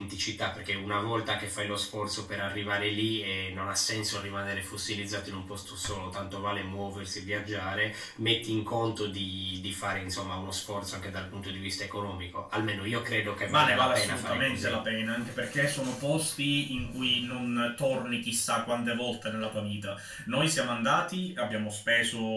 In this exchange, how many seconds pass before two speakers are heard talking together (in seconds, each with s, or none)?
13.5 s